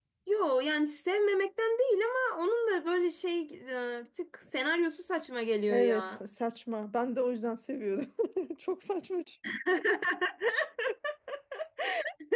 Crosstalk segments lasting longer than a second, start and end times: none

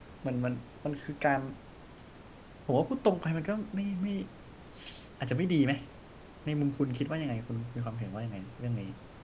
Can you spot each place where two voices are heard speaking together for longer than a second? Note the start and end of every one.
none

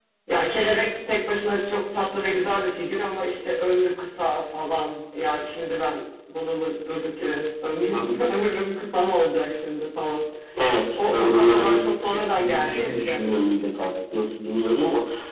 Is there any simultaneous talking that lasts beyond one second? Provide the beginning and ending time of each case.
11.0-13.2

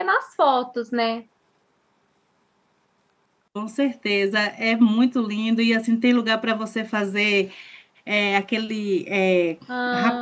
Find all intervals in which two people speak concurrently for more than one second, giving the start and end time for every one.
none

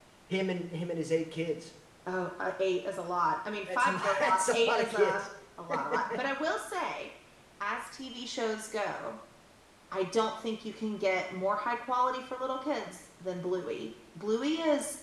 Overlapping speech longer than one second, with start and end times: 3.7-5.1

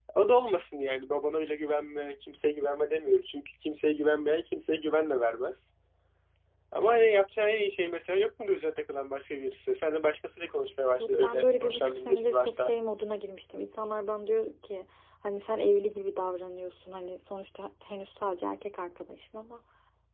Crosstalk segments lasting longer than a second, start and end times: 11.0-12.7

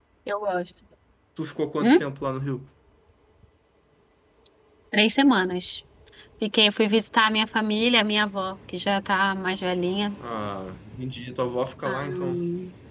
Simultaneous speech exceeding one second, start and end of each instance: none

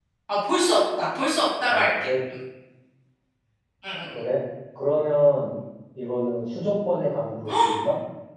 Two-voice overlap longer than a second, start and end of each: none

